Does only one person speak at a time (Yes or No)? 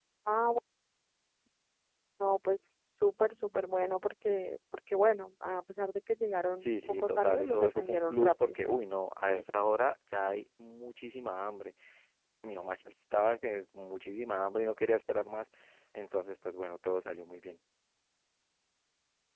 No